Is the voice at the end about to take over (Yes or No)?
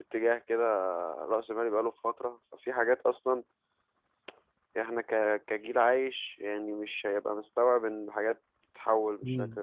Yes